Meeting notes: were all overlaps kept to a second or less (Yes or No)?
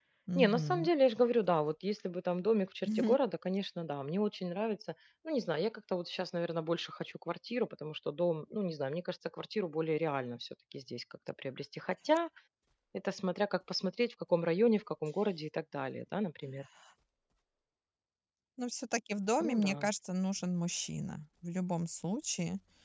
Yes